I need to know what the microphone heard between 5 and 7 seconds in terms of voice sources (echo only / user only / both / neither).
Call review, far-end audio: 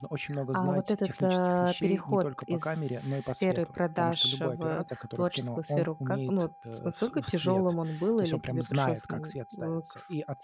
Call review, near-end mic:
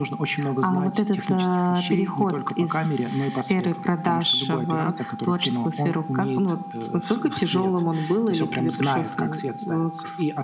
echo only